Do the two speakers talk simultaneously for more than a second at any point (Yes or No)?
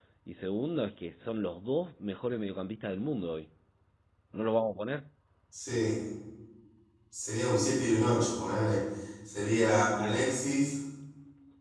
No